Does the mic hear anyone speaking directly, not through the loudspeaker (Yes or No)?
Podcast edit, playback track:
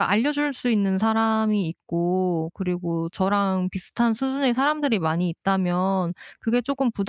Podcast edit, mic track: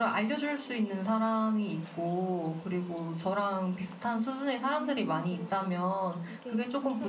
Yes